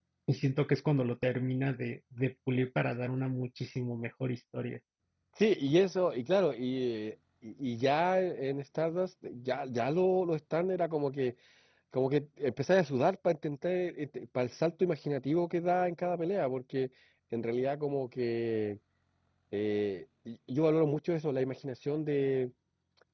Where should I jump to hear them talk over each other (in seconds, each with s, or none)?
none